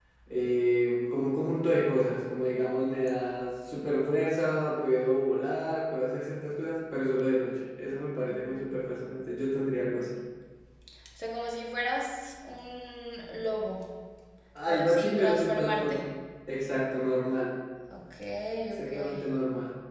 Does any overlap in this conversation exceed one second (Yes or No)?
Yes